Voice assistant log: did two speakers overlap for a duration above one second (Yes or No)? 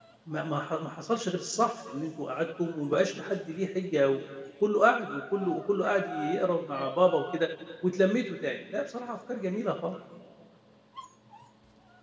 No